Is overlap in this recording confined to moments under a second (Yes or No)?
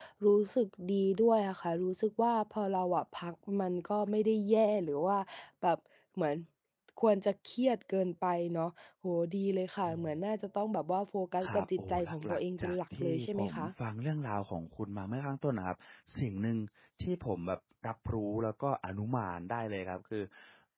No